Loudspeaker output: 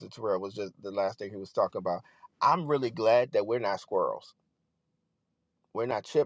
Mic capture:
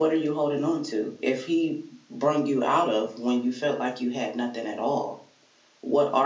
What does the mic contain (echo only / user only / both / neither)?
user only